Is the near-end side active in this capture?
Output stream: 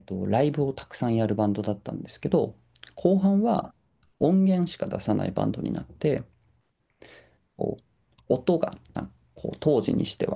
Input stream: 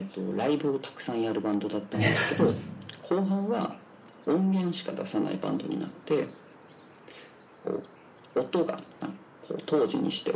Yes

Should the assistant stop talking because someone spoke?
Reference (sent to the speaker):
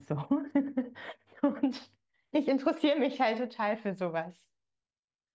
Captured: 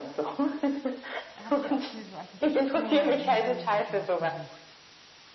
Yes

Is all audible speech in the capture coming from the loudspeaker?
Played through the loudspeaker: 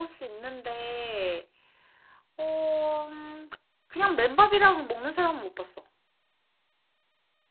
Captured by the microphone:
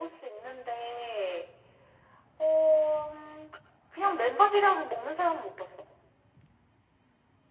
Yes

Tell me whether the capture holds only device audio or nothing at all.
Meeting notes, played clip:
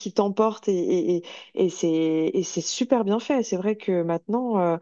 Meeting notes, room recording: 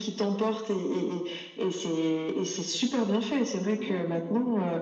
No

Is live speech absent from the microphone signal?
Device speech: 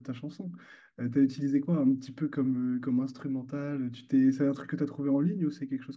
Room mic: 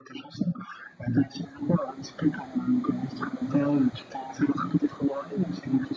Yes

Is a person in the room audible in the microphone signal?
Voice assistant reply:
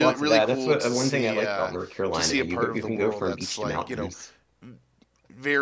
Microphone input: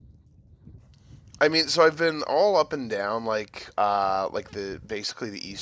Yes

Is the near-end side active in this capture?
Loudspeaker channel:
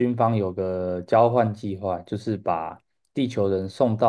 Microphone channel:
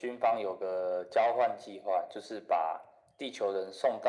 No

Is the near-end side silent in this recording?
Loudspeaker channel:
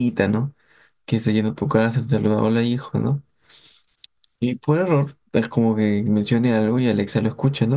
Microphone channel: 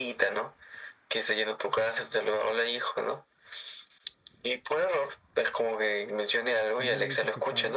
No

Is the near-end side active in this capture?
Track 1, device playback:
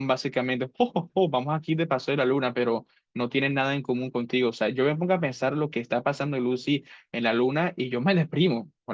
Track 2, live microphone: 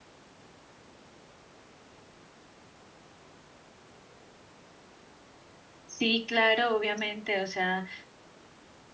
Yes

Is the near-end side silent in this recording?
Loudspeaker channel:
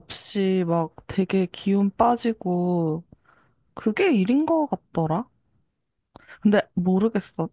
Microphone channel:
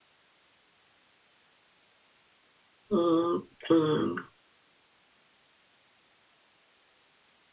No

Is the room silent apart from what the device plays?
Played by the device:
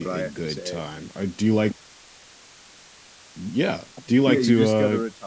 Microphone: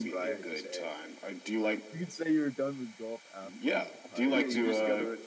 No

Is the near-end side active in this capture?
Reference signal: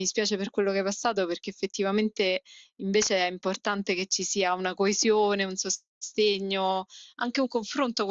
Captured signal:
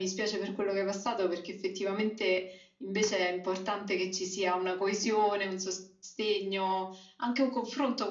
No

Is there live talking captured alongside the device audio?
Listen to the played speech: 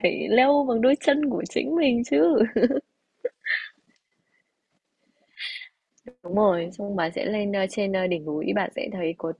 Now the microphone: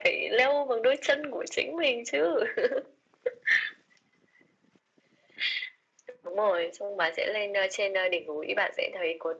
No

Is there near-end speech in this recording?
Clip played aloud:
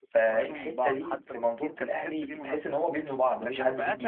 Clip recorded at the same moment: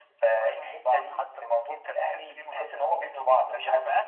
No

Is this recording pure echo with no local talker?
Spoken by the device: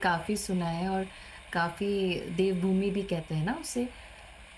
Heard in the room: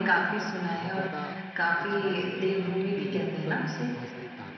No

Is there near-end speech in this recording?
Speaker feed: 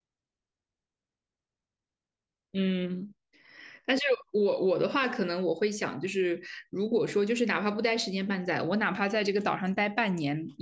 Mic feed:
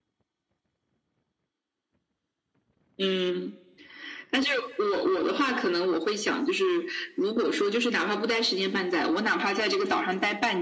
No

